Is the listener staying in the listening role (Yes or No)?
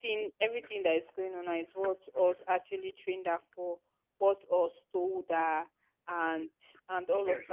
No